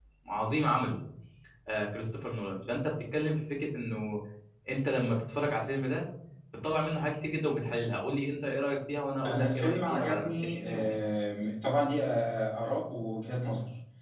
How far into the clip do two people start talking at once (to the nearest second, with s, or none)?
9 s